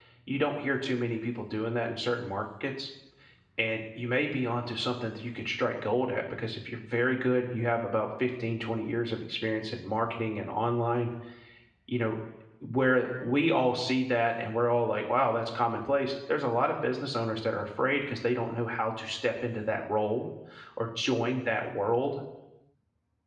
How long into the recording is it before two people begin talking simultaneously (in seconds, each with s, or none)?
none